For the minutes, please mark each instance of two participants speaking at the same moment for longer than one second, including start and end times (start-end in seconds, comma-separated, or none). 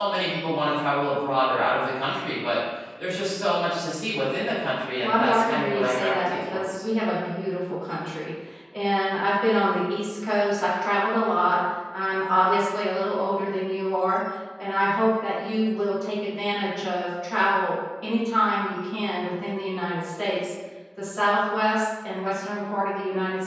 5.0-6.6